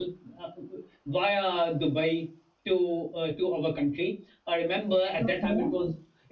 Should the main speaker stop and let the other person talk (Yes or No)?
No